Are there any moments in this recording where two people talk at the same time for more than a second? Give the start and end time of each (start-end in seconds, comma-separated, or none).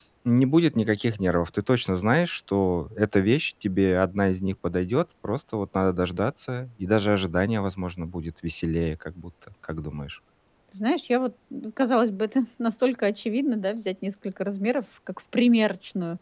none